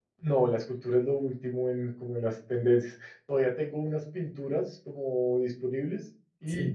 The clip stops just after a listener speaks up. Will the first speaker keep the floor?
Yes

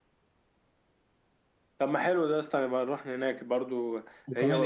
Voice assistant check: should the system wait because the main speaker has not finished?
Yes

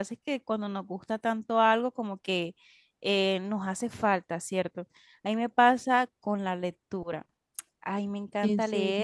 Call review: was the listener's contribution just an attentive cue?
Yes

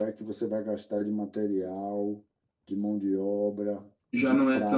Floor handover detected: Yes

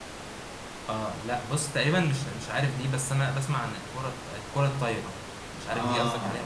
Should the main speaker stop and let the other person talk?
Yes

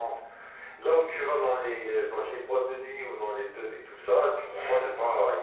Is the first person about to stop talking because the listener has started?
No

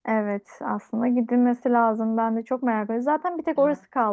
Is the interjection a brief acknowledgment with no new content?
Yes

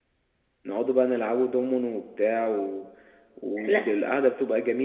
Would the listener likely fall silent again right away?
Yes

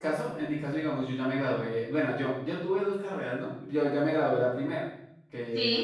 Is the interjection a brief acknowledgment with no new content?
Yes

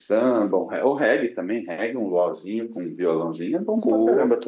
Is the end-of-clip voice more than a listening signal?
Yes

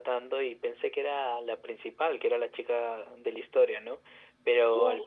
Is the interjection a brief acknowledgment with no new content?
Yes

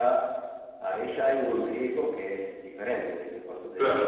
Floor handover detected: Yes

